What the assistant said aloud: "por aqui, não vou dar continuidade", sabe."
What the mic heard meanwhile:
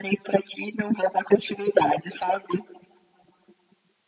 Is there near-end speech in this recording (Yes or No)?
No